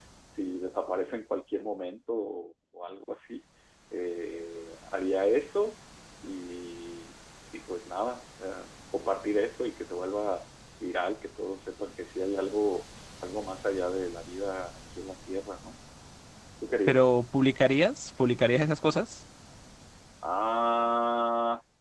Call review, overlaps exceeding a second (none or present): none